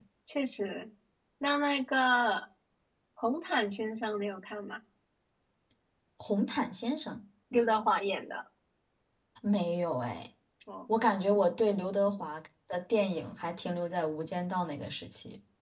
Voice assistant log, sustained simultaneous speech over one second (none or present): none